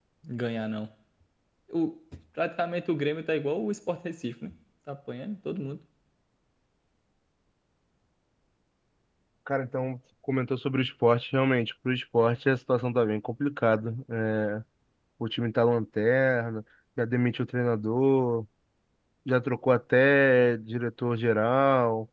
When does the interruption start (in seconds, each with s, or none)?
none